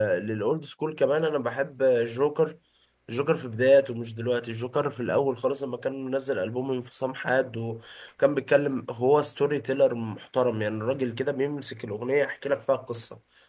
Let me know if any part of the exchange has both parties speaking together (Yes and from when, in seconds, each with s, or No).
No